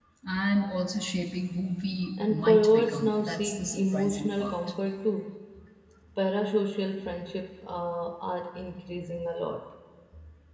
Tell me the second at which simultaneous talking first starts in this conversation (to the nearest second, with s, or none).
2 s